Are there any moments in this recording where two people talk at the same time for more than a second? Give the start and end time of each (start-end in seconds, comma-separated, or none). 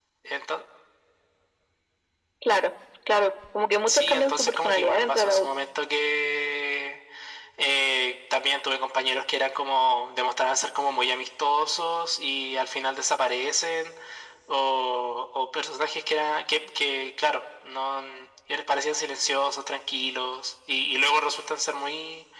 3.9-5.5